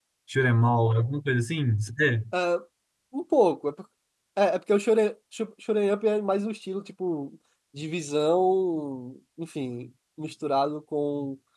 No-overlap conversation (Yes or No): Yes